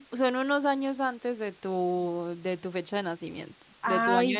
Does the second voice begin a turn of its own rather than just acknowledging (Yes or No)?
Yes